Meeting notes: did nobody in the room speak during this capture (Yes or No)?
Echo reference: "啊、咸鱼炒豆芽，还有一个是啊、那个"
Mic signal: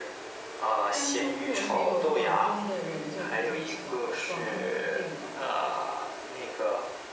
No